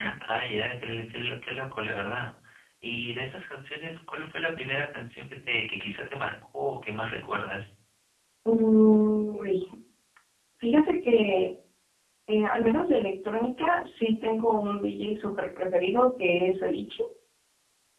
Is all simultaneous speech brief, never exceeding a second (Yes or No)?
Yes